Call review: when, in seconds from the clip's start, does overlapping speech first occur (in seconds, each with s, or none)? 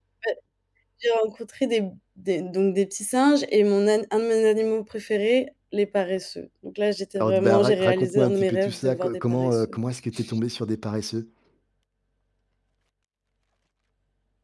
7.2 s